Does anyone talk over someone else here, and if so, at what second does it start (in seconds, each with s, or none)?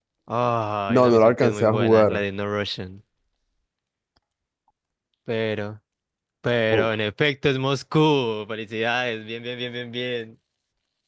0.9 s